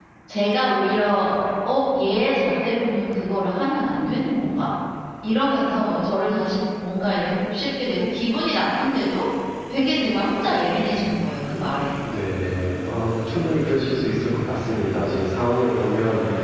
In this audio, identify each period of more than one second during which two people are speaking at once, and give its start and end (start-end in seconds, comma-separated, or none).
none